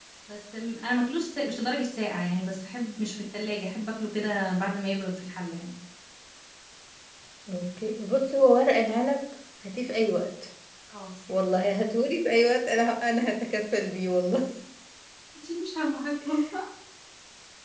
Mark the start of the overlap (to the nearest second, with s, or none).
none